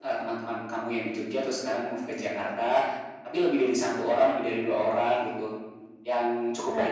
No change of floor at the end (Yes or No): Yes